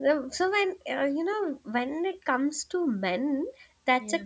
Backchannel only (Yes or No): Yes